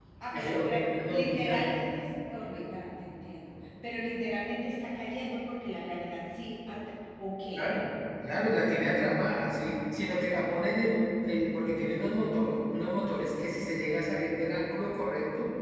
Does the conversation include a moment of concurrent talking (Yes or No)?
Yes